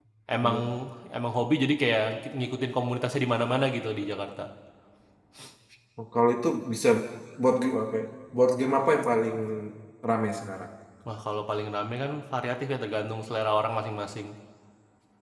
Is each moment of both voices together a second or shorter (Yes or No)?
Yes